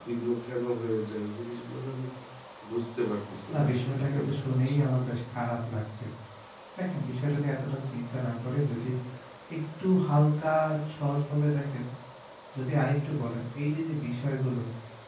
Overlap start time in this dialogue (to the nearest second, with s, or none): 4 s